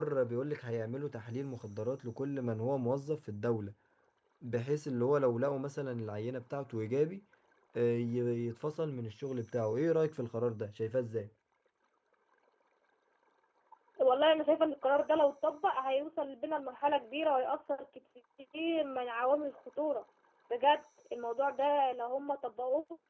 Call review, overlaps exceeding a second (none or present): none